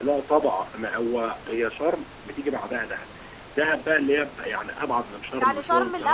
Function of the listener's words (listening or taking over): taking over